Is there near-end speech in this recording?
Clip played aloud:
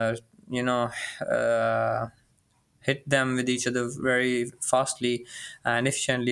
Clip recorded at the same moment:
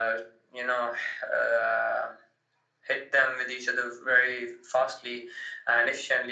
No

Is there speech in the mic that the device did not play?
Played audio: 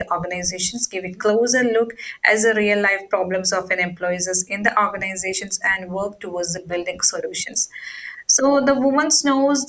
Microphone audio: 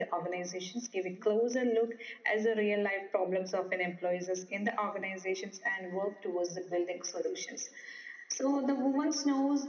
No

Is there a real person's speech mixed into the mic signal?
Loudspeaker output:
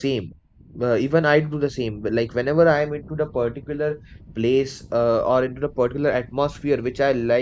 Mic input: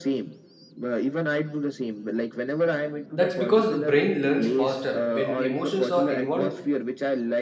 Yes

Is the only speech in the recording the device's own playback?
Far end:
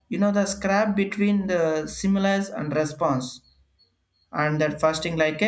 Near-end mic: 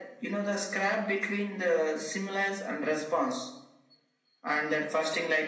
Yes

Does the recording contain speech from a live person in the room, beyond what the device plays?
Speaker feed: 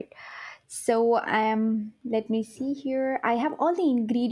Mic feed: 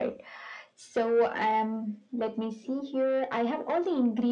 No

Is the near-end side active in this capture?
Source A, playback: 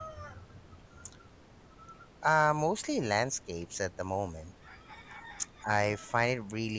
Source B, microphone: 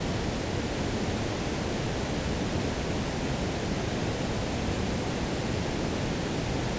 No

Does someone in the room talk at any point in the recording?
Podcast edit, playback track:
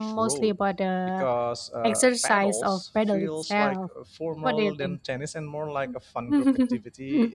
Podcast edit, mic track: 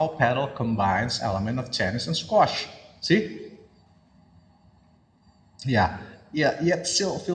Yes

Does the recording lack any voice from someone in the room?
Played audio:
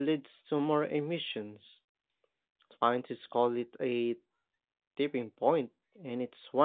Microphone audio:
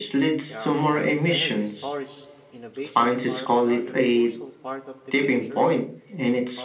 No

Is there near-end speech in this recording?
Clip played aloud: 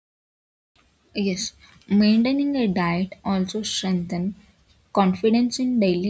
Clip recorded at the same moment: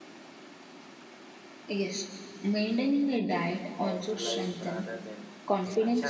Yes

